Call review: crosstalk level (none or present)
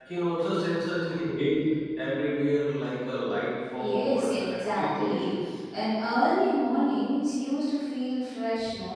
present